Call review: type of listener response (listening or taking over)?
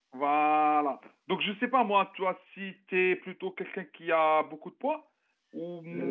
taking over